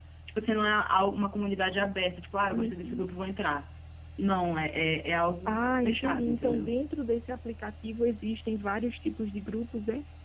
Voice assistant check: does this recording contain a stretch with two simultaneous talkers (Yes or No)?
Yes